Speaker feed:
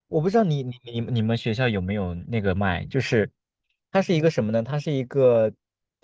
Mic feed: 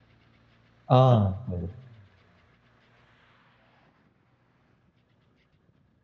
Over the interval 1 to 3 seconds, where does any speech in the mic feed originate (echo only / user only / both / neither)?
user only